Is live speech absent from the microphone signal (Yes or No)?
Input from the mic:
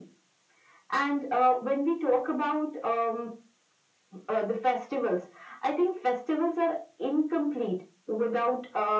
Yes